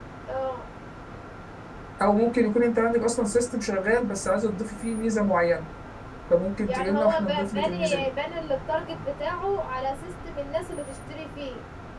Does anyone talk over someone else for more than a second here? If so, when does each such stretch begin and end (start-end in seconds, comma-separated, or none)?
6.7-8.1